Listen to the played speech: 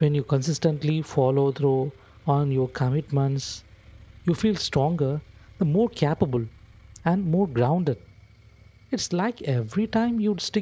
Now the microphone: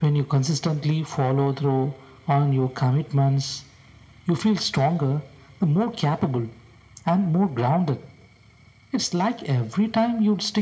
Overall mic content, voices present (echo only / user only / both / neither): echo only